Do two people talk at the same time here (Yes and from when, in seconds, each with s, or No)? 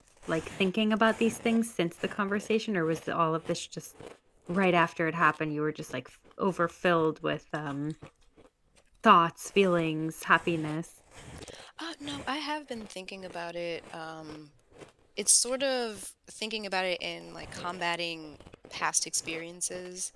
No